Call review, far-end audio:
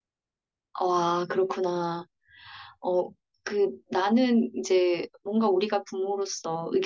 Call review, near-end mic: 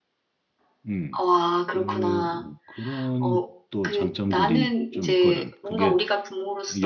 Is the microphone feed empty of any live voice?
No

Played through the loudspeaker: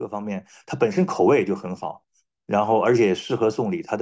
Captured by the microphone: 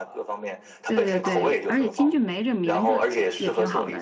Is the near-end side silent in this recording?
No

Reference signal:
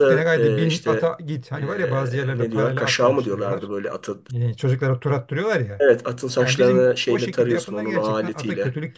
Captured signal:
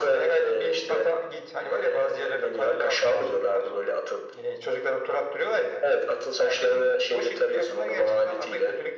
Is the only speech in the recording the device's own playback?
Yes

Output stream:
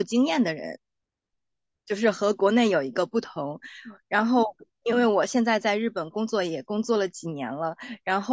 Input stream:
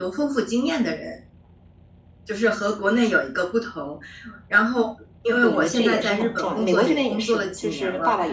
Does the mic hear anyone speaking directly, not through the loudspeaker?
Yes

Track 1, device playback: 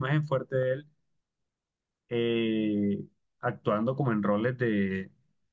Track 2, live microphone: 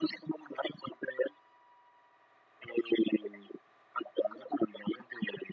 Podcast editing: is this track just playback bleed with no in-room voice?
Yes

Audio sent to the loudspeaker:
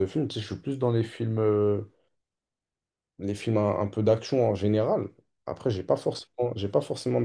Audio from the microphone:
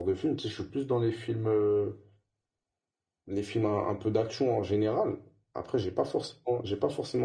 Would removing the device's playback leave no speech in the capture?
Yes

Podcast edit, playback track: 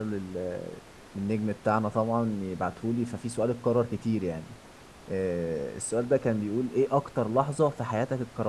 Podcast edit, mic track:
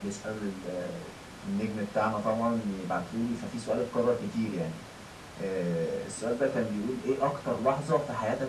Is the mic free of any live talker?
Yes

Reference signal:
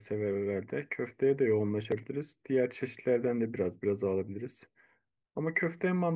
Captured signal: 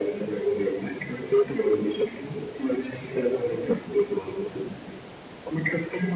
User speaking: No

